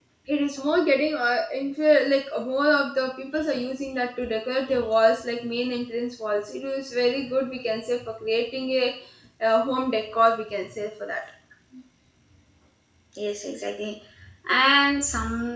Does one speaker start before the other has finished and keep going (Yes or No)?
No